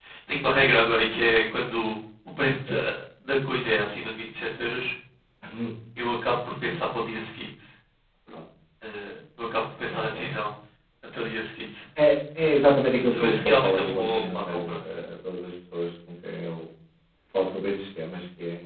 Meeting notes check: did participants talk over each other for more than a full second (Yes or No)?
Yes